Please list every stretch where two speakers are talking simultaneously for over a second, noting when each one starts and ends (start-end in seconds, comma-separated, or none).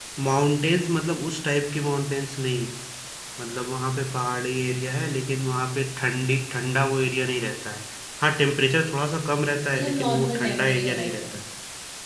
9.7-11.3